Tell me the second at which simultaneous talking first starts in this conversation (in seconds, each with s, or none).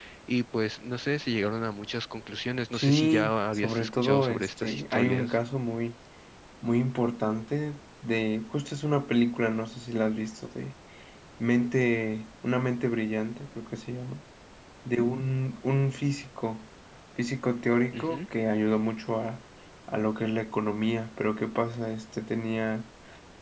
2.7 s